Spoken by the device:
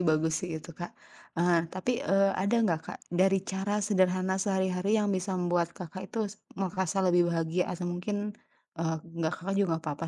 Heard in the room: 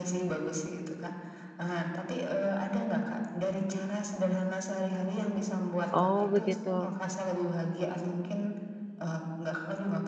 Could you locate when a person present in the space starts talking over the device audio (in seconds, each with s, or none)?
5.9 s